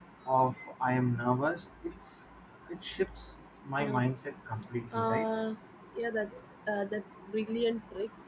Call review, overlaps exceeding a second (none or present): none